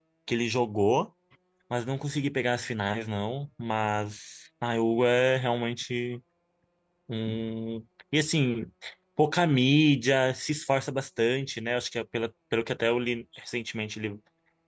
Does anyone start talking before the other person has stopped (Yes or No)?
No